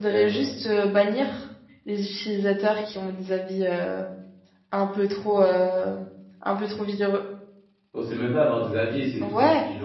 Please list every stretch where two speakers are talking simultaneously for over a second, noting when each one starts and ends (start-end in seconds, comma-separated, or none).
none